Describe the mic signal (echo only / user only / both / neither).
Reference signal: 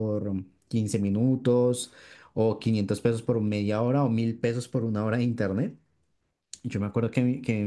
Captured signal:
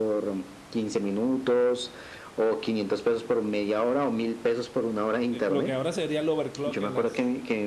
both